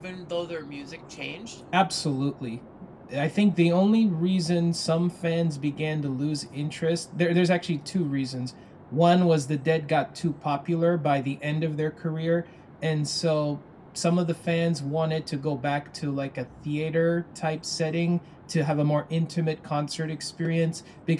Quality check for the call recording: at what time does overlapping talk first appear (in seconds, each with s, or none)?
none